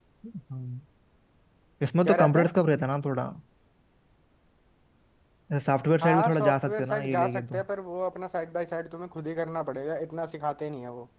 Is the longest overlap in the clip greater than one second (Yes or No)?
Yes